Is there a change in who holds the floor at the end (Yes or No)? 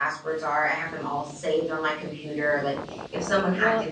No